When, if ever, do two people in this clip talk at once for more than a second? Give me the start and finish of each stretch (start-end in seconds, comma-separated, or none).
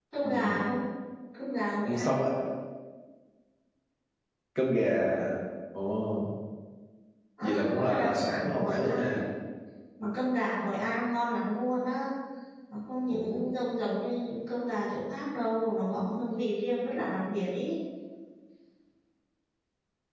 7.4-9.2